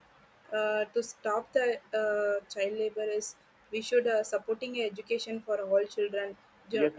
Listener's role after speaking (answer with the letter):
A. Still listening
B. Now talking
B